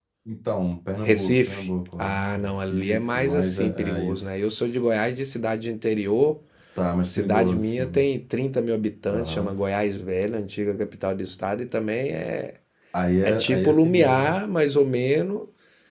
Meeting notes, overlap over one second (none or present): present